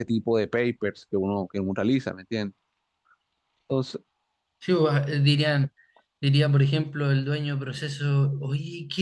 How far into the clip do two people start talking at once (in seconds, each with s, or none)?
none